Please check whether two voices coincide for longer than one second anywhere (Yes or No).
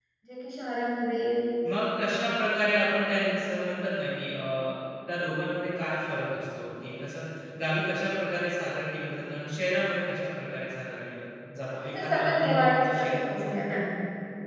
Yes